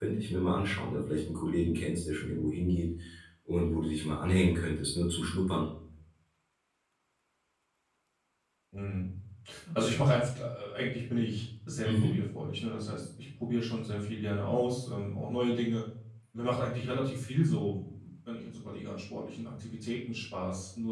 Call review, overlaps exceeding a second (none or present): none